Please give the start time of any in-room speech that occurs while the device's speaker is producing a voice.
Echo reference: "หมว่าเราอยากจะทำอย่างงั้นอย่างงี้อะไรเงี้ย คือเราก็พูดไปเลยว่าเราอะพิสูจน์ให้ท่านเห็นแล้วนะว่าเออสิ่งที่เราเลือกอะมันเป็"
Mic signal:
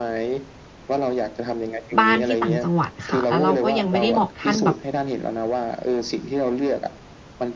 2 s

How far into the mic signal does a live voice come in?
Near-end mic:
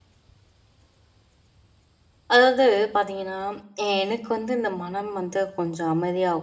2 s

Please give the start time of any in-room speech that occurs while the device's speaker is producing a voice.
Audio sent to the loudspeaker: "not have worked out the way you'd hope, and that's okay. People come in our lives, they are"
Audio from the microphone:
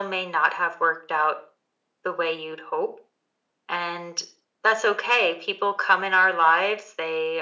none

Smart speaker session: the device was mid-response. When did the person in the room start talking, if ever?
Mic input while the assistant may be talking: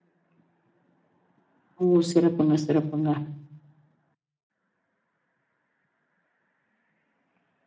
2 s

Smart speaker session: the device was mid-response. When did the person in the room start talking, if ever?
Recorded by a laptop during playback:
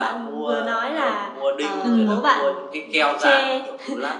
2 s

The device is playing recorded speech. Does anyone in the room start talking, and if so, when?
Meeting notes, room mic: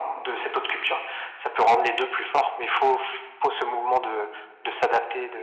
none

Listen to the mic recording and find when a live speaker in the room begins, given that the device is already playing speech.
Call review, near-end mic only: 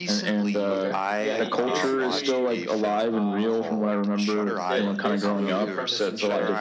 1 s

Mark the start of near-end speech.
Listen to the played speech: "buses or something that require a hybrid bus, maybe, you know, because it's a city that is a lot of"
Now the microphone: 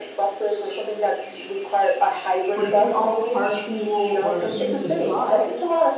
3 s

